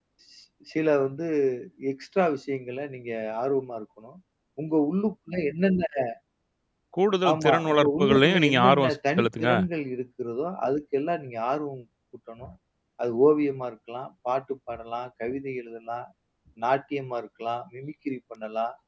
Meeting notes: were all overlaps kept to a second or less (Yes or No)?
No